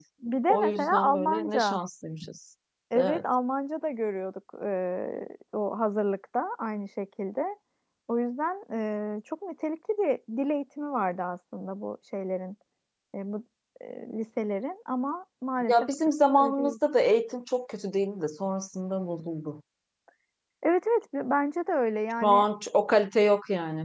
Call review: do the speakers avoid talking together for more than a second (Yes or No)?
No